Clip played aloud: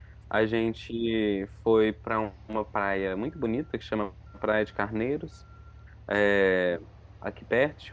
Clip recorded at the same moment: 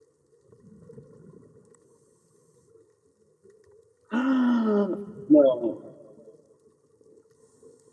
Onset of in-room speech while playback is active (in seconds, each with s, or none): 4.1 s